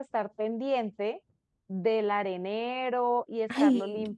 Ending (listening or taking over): listening